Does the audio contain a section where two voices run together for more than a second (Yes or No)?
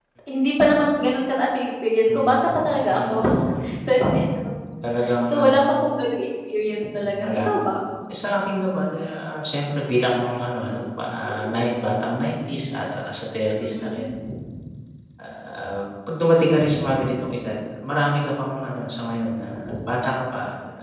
No